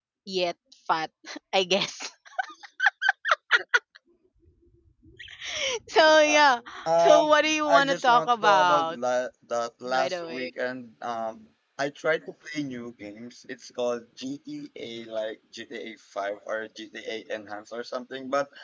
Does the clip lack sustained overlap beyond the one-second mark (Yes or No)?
No